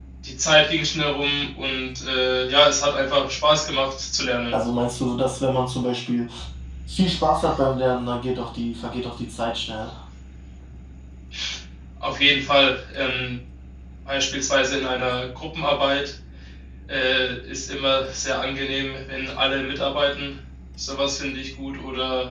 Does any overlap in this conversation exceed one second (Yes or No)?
No